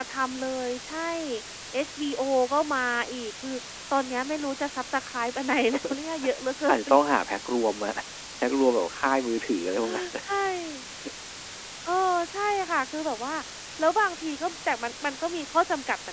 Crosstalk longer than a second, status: none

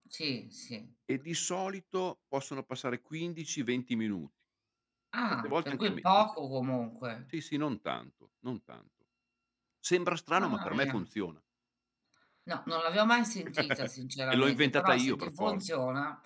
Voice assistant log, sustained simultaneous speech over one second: present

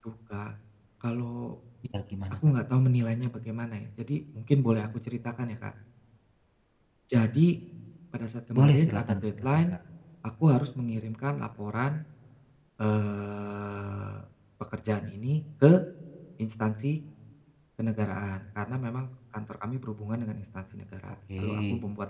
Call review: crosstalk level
present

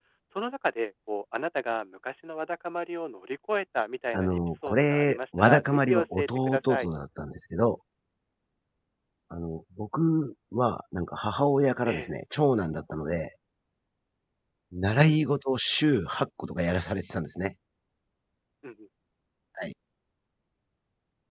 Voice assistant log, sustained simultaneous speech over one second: present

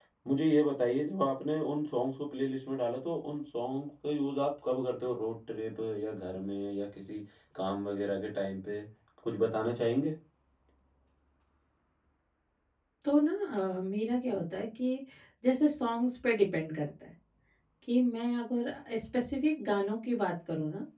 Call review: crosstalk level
none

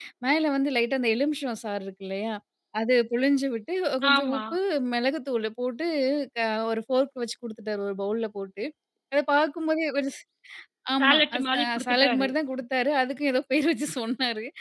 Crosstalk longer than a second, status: present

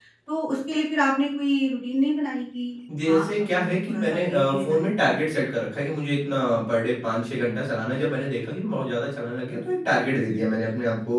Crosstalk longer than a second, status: present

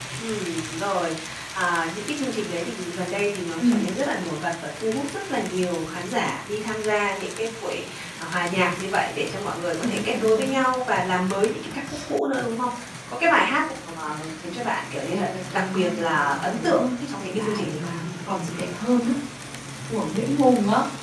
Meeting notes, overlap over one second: present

